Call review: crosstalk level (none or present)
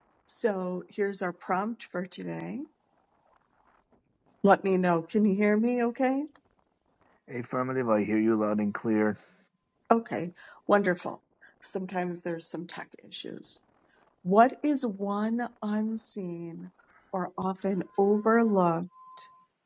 none